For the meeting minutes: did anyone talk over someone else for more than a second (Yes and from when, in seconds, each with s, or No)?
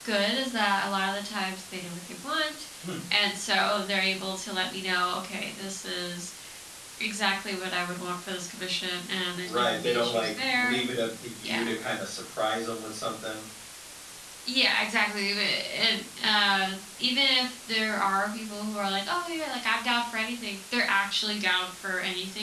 Yes, from 9.4 s